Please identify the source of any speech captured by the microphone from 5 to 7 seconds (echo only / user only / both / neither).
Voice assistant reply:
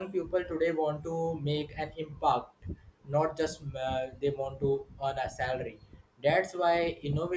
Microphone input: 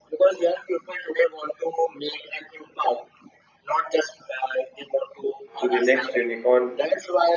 both